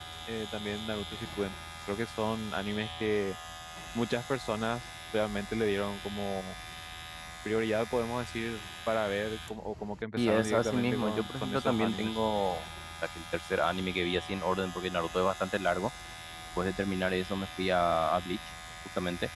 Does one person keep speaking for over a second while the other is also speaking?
Yes, from 10.2 s

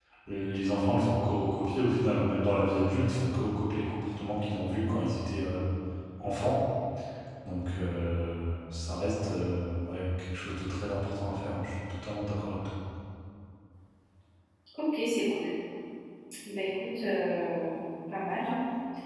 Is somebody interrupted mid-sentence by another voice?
No

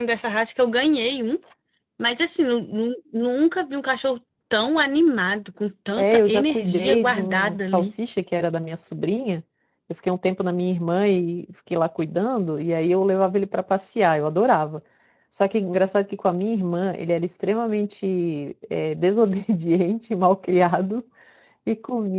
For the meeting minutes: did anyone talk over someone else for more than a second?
Yes, from 6.0 s

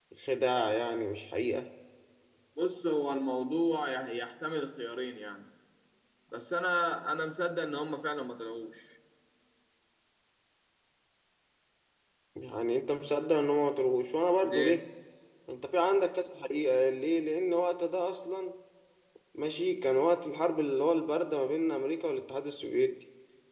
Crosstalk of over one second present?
No

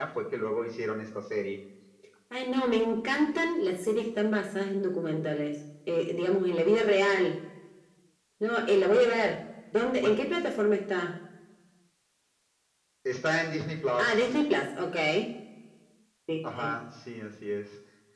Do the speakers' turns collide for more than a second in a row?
No

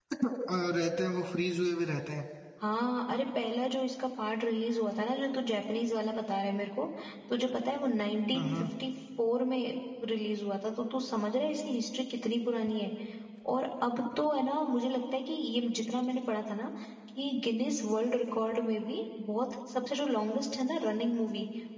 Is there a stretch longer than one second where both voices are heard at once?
No

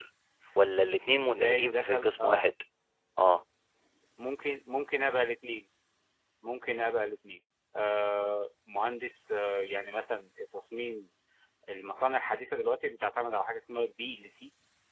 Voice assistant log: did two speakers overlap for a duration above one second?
Yes, from 1.2 s

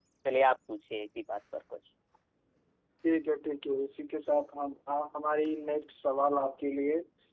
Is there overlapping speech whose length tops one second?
No

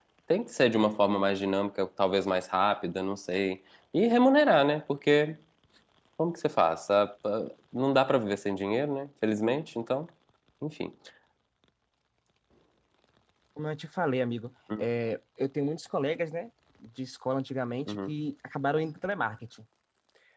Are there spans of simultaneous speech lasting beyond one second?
No

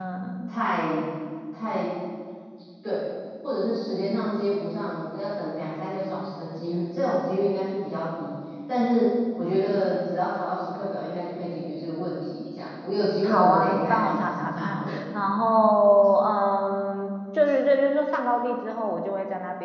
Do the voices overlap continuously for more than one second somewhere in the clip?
Yes, from 13.2 s

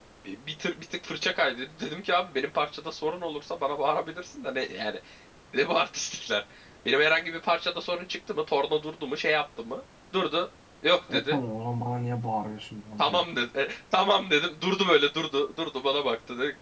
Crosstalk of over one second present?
No

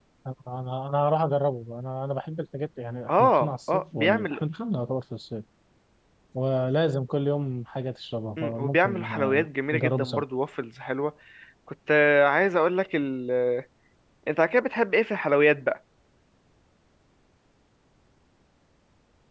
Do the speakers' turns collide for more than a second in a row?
Yes, from 3.1 s

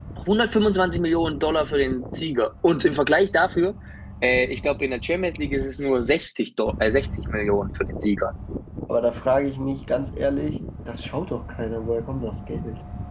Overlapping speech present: No

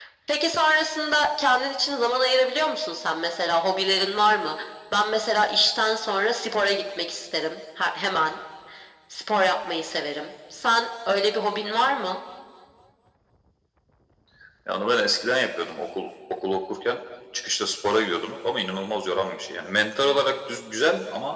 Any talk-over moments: No

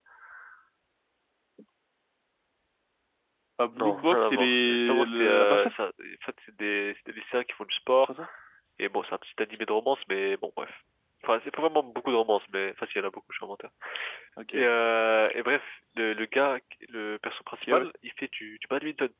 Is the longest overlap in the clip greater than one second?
Yes, from 3.7 s

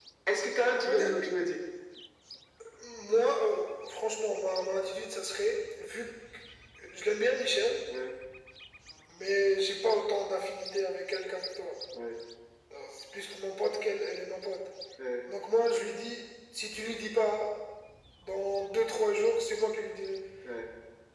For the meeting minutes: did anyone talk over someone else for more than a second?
No

